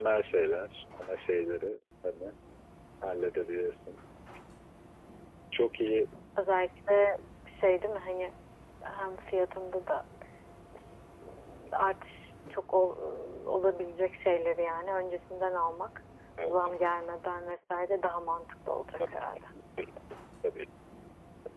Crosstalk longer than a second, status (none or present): none